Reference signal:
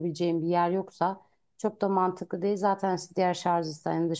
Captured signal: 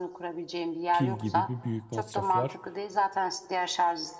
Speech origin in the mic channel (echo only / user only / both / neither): both